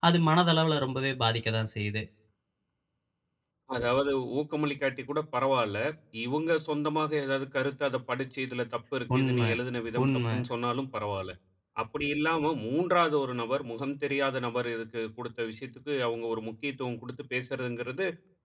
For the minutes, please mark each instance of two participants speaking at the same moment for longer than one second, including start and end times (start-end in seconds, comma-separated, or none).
none